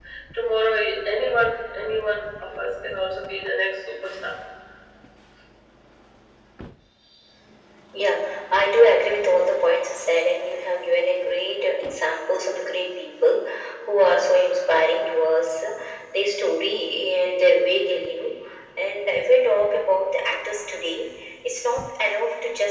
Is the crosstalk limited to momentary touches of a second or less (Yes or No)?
Yes